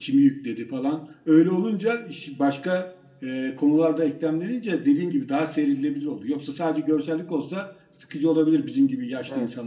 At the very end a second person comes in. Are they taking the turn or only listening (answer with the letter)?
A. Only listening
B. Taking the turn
B